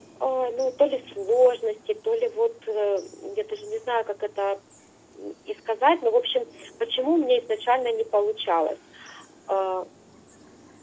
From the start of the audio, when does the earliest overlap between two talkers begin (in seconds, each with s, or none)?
none